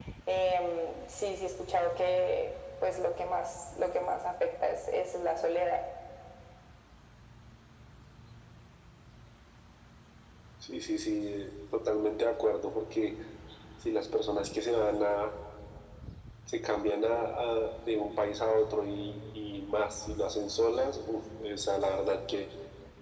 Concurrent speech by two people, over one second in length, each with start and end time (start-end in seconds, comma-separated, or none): none